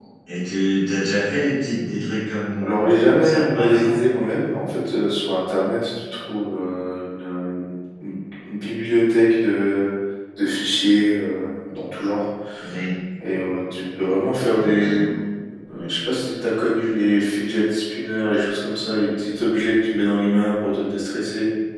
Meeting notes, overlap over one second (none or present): present